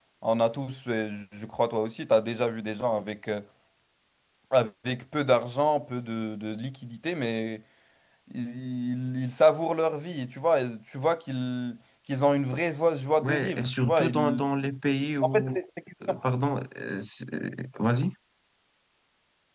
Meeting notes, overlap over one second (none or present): present